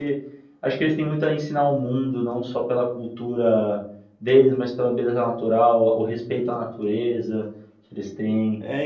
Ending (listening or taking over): taking over